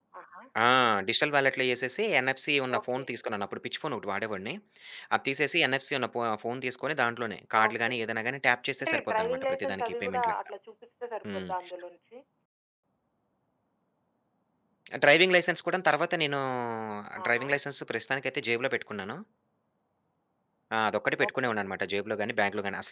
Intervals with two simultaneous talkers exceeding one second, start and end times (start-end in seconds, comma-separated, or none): 8.8-10.5